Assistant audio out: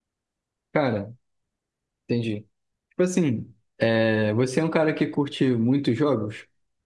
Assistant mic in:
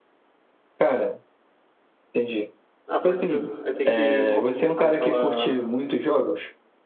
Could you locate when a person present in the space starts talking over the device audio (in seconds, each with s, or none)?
2.9 s